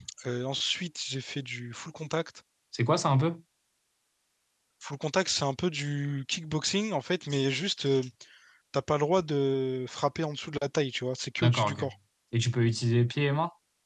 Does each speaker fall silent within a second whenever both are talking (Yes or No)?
Yes